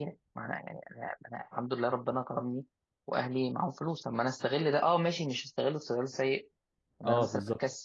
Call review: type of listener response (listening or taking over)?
listening